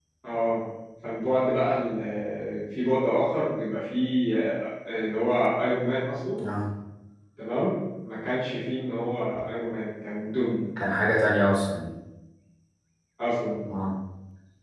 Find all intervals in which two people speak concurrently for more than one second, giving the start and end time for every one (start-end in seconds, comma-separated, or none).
none